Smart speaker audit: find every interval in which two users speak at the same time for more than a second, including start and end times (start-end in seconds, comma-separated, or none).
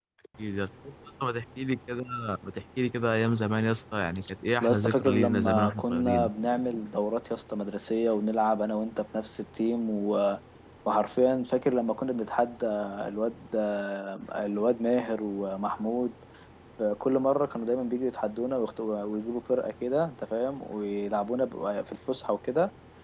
4.6-6.3